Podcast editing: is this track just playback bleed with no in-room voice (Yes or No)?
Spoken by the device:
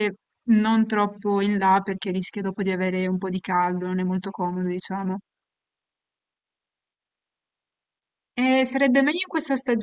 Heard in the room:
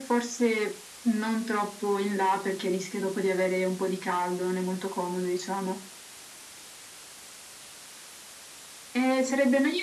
Yes